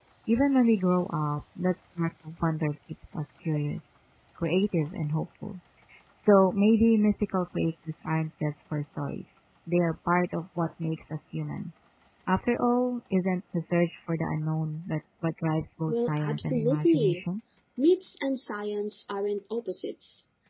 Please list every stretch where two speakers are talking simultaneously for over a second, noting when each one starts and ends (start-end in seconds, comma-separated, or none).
15.9-17.2